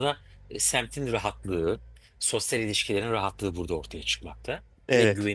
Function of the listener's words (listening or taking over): listening